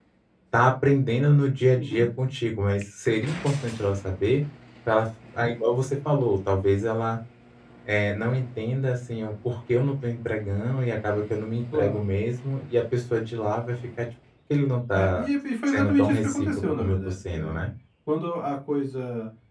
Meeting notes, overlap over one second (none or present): present